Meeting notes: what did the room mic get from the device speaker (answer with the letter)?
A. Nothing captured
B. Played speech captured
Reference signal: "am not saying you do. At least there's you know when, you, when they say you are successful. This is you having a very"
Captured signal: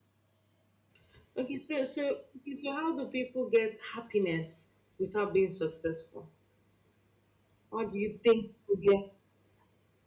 A